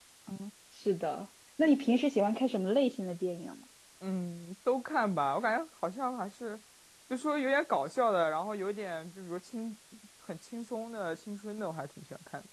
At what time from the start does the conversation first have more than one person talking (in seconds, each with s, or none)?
none